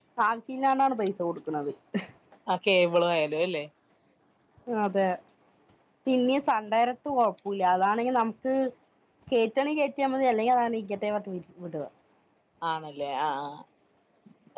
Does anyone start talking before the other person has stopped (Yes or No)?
No